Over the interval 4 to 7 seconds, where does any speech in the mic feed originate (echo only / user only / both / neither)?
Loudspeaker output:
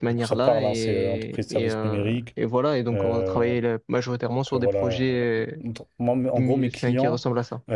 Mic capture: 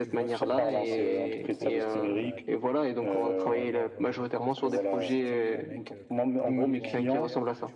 both